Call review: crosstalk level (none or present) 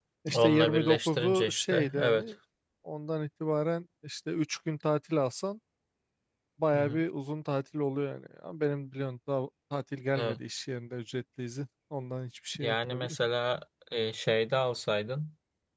present